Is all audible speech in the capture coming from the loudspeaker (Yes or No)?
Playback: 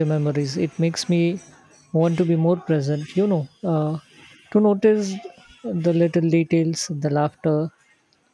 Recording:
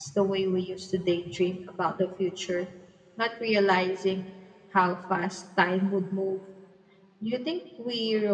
No